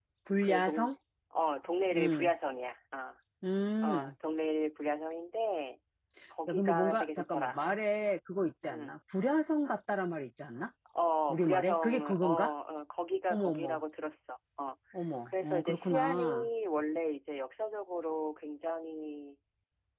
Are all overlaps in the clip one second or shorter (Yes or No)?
No